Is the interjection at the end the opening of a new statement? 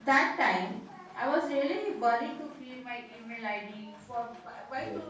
No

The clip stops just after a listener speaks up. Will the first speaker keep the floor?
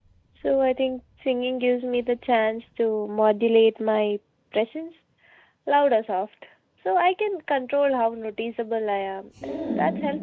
No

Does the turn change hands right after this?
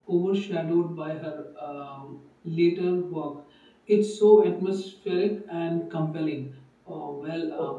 No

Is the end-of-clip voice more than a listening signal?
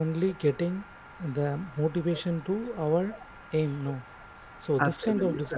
Yes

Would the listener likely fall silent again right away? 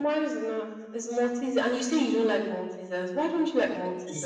No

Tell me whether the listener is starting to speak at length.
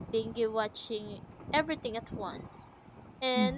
No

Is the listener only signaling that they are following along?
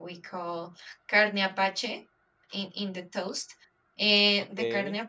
Yes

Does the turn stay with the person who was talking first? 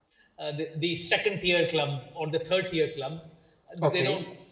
Yes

